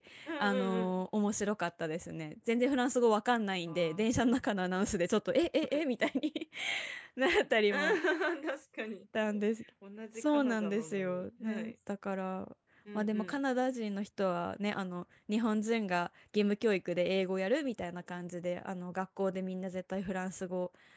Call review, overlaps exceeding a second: present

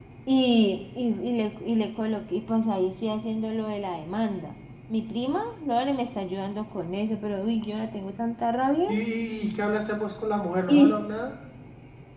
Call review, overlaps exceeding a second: none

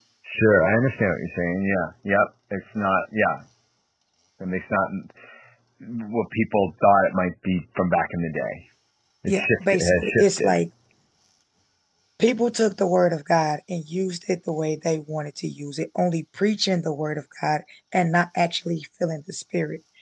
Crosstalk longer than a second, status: present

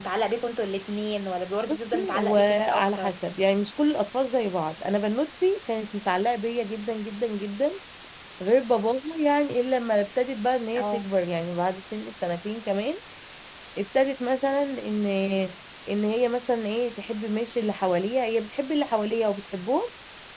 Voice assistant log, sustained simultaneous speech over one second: present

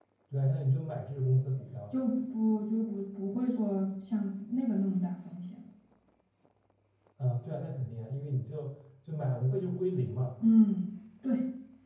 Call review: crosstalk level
none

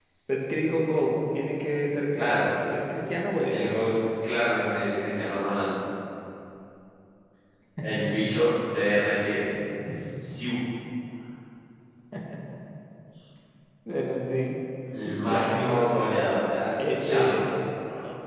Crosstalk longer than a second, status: present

